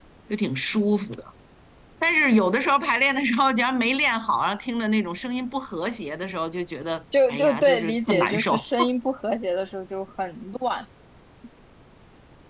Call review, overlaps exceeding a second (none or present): present